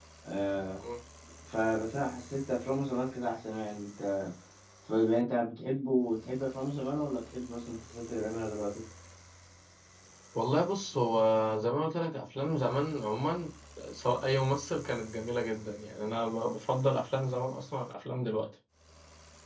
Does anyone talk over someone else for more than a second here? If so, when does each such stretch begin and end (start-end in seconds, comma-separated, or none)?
none